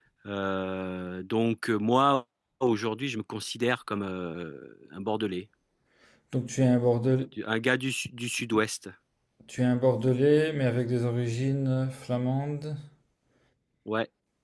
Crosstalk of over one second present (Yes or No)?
No